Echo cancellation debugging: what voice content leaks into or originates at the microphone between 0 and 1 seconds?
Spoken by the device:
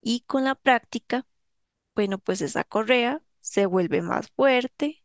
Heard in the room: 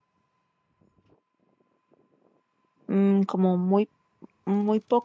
neither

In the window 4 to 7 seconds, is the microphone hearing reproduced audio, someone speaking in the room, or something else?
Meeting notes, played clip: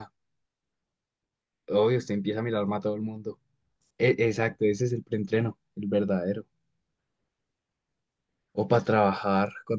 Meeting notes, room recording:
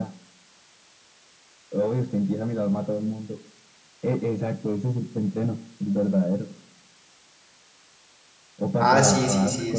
echo only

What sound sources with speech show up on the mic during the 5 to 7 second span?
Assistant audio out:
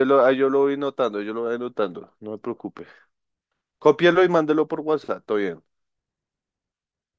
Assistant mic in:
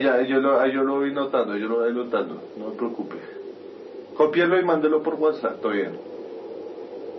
echo only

